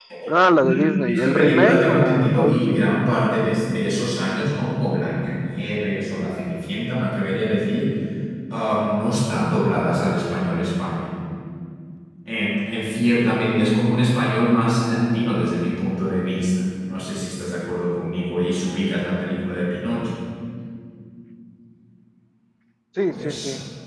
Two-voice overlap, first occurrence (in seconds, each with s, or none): 0.6 s